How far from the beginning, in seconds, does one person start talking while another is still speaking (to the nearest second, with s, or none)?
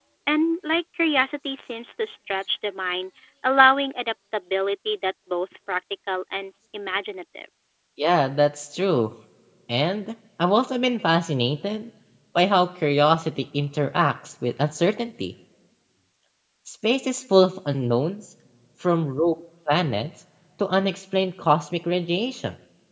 none